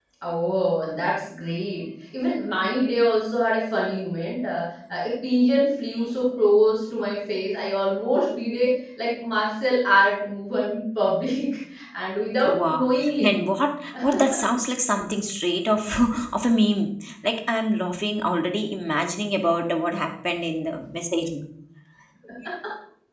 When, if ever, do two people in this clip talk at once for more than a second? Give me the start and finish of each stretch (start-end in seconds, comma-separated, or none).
none